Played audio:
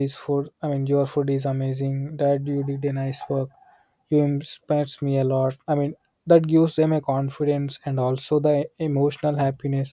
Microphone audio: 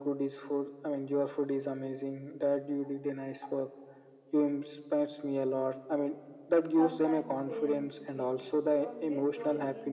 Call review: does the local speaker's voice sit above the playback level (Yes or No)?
No